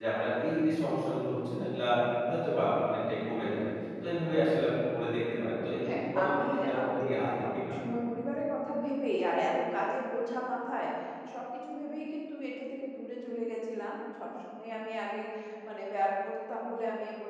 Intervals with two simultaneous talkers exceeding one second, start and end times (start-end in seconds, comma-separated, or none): 5.9-8.0